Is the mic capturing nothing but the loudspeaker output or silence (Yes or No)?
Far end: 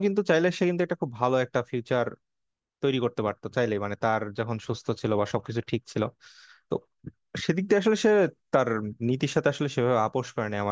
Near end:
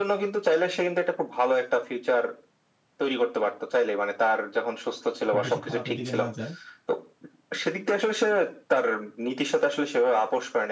No